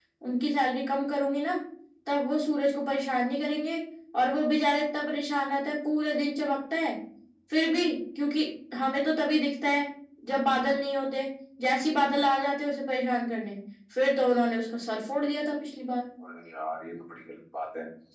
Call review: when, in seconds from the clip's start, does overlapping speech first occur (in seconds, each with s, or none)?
none